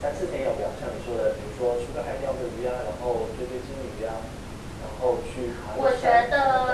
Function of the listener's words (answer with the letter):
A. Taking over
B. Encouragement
A